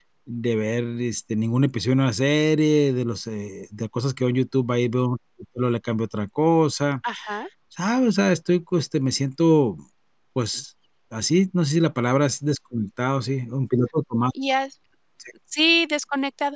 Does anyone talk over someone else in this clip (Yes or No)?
No